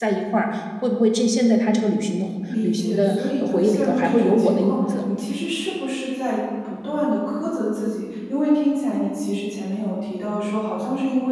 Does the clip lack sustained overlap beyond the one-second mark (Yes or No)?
No